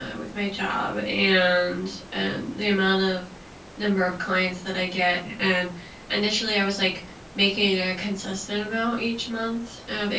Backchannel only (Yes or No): Yes